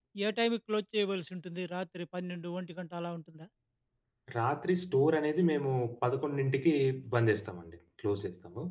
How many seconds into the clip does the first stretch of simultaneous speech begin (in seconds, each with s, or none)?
none